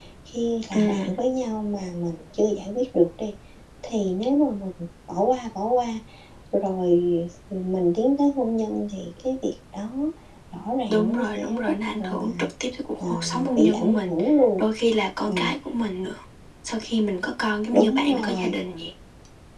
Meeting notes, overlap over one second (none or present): present